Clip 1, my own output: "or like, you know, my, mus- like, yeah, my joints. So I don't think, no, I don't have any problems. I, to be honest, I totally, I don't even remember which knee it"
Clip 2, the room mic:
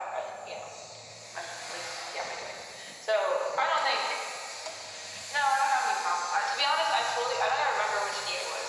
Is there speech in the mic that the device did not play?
No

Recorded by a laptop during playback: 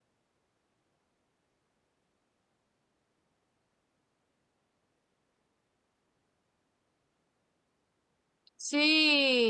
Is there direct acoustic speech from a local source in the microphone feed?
Yes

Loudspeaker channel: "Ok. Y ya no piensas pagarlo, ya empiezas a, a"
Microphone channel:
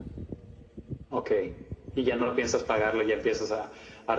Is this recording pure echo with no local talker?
Yes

